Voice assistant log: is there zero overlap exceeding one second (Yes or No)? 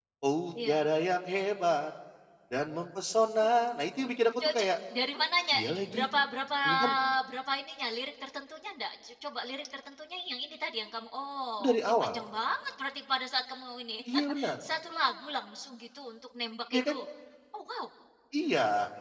Yes